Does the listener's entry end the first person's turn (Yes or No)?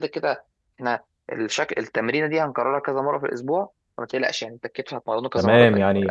Yes